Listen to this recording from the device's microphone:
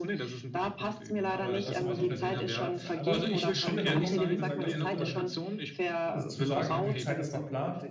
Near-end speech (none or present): present